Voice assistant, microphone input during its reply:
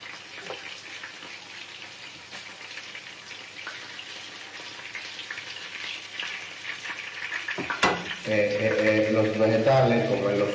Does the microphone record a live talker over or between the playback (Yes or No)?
Yes